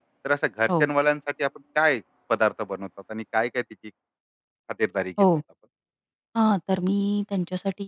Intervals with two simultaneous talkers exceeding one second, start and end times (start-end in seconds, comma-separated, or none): none